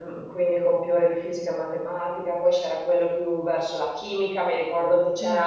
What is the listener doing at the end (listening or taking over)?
listening